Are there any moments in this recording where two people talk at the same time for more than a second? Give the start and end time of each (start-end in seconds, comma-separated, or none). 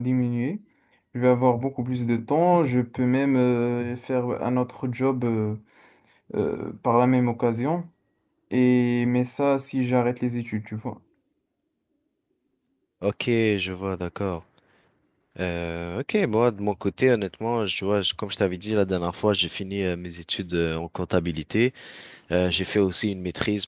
none